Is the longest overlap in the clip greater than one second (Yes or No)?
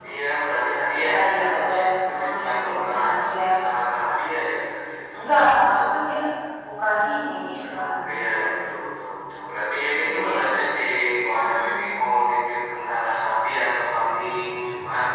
Yes